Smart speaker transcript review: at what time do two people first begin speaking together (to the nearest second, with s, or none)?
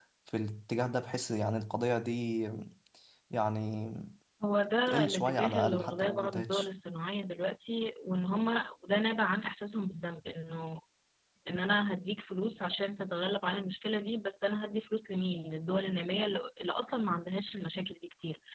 5 s